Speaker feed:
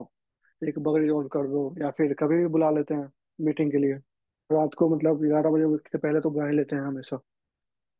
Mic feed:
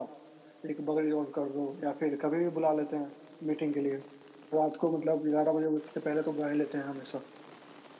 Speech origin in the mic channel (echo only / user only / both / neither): echo only